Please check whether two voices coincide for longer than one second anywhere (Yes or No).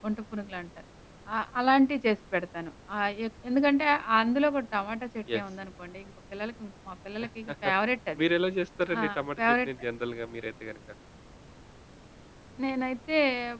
No